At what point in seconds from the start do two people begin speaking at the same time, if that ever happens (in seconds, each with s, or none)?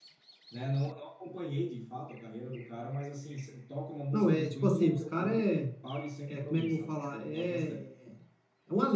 4.1 s